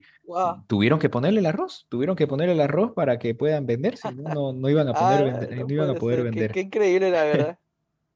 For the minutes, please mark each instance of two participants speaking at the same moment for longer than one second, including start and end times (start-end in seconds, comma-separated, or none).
4.9-6.5